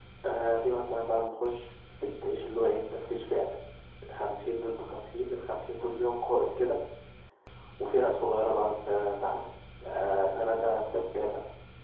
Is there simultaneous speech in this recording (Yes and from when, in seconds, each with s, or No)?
No